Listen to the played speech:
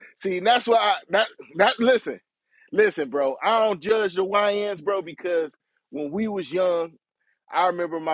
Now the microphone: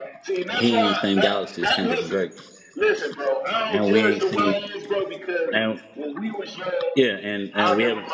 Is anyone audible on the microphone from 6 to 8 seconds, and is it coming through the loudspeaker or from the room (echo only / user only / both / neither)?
both